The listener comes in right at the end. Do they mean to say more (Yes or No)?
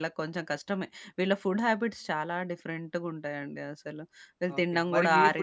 Yes